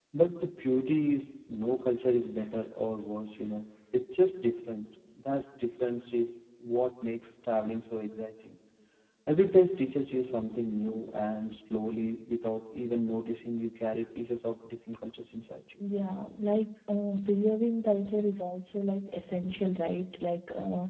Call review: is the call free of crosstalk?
Yes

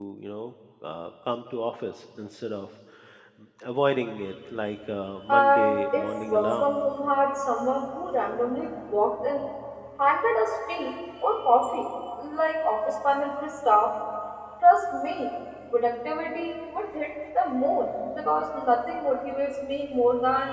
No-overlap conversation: No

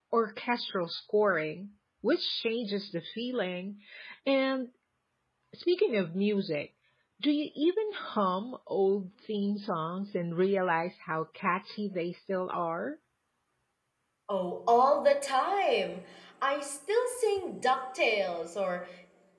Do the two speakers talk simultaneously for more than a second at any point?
No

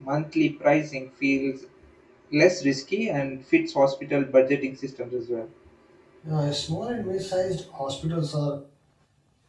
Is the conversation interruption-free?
Yes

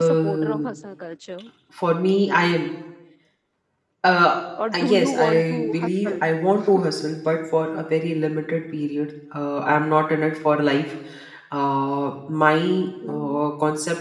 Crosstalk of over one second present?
Yes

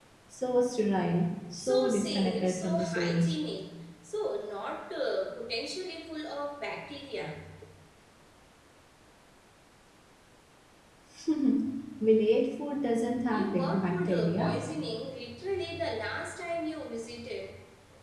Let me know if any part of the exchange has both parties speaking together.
Yes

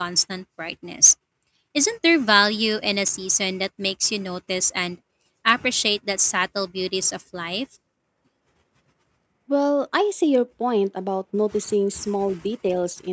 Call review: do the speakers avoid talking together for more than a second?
Yes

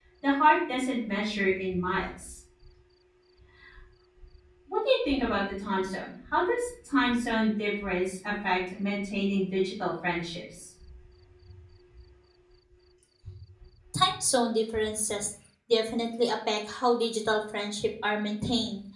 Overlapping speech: No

